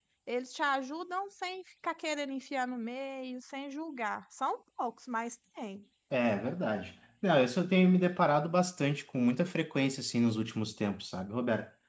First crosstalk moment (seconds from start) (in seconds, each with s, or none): none